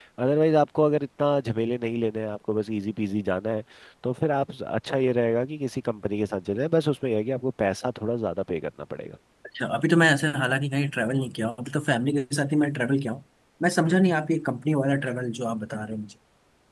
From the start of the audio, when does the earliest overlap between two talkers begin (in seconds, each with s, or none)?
none